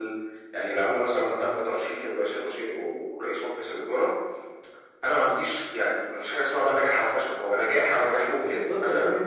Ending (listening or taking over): taking over